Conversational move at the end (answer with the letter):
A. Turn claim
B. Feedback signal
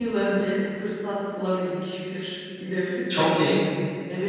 B